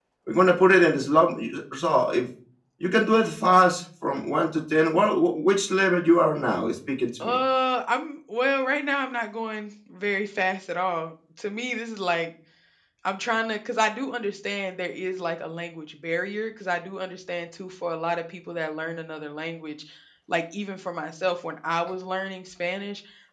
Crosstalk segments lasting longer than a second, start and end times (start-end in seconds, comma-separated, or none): none